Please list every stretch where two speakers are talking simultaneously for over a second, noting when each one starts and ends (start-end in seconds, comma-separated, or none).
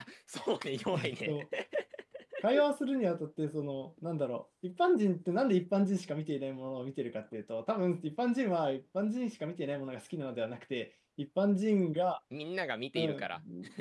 none